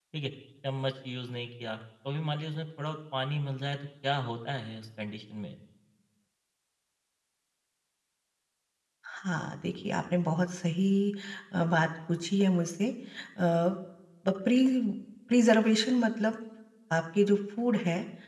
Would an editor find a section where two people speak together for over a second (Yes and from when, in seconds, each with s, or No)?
No